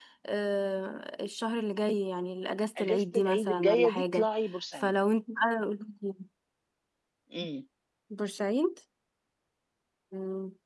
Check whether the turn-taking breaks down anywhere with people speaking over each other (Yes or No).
Yes